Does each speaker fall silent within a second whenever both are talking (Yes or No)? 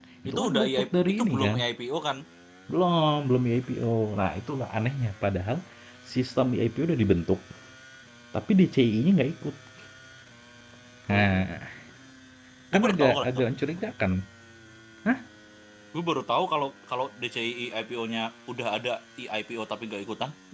No